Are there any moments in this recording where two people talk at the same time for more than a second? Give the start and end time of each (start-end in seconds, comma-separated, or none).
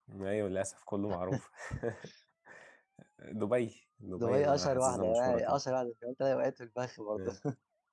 4.2-5.6